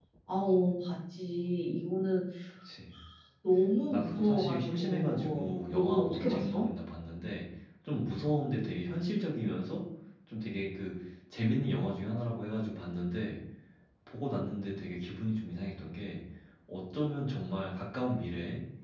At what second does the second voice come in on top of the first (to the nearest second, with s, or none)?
4 s